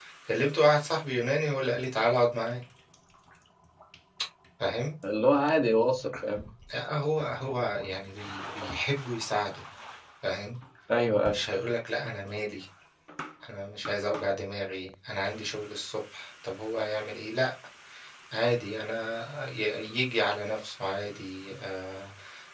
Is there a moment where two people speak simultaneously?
No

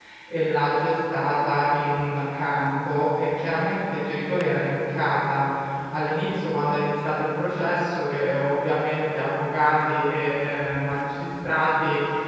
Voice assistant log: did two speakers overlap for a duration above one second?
No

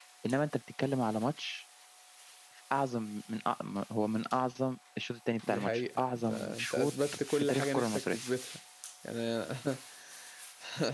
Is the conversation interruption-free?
No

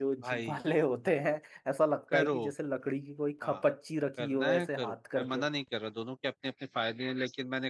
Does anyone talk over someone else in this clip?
Yes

